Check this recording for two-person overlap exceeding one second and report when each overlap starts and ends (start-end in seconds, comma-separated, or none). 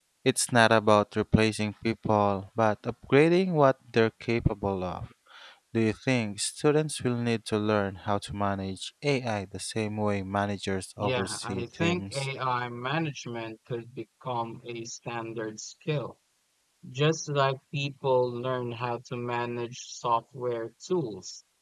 11.0-12.3